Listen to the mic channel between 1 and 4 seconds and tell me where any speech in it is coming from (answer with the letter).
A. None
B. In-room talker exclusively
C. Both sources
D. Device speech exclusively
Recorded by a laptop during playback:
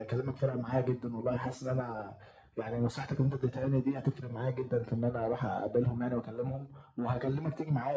D